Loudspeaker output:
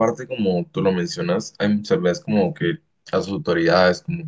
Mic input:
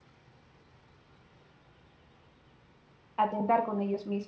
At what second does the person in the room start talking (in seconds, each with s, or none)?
3.2 s